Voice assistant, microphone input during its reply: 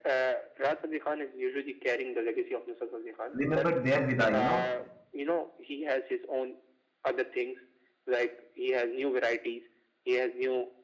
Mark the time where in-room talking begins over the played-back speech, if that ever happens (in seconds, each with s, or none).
3.3 s